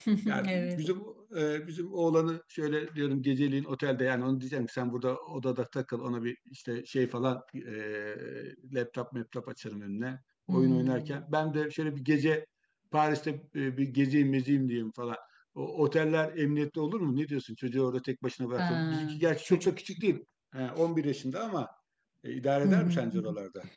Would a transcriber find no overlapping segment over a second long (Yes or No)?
No